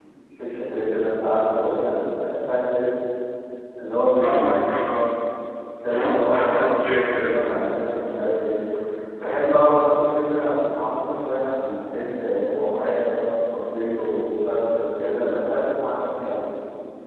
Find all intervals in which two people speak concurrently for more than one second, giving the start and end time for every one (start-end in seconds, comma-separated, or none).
5.9-7.3